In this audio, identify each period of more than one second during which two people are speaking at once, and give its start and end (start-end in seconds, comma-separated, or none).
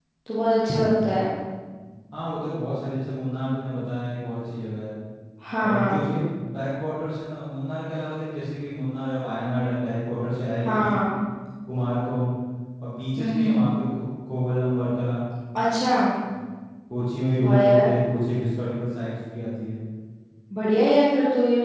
none